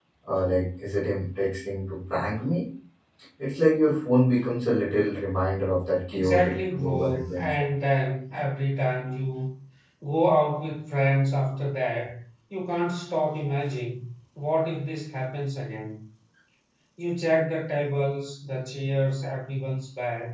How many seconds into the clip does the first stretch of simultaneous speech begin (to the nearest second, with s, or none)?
6 s